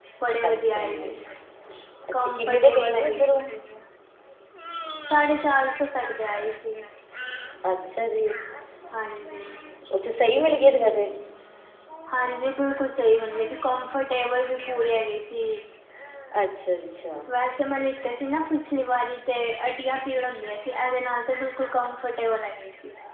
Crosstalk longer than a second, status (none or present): present